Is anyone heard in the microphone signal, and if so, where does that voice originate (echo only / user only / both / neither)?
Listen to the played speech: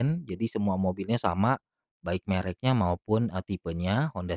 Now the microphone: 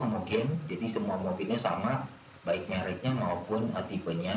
echo only